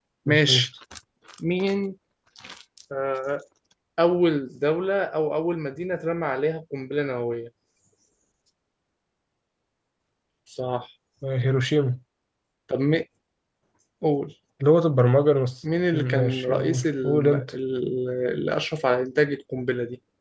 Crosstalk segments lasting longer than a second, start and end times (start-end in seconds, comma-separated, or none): 15.9-17.4